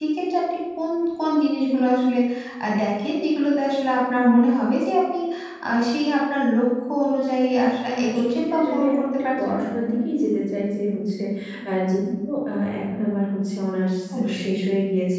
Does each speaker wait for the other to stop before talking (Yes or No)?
No